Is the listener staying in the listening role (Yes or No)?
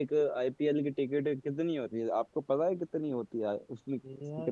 No